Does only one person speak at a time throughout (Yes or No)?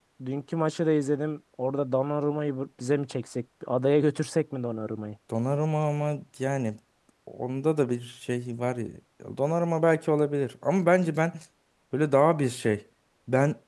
Yes